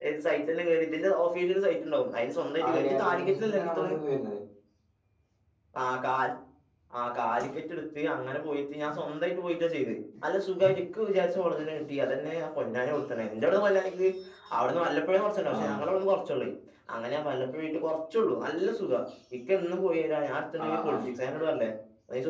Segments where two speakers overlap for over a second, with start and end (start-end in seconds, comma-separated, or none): 2.6-4.0